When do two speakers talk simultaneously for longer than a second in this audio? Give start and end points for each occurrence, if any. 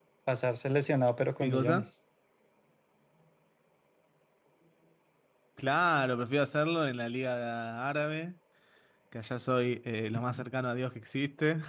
none

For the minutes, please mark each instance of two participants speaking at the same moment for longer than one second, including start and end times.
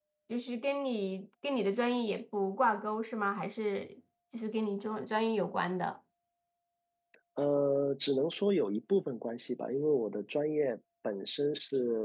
none

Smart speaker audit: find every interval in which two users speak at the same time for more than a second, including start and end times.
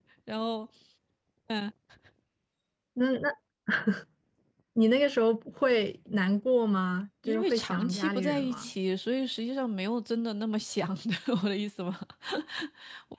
7.3-8.7

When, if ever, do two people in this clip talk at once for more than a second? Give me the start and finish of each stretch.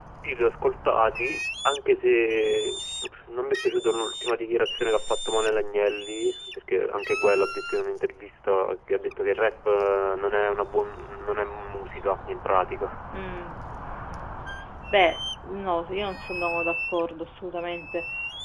none

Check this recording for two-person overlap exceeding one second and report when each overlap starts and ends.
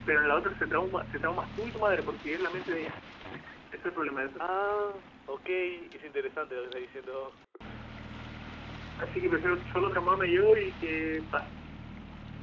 none

